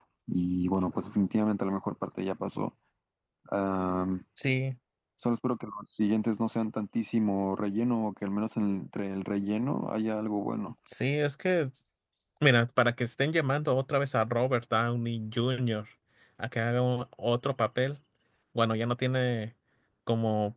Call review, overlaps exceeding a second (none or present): none